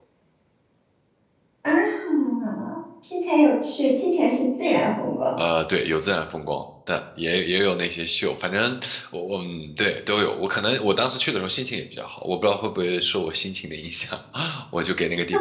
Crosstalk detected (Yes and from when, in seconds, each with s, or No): No